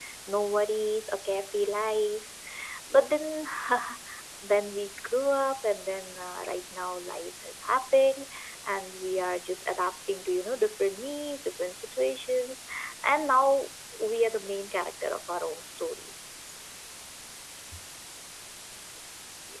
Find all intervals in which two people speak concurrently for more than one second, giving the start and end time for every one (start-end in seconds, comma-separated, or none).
none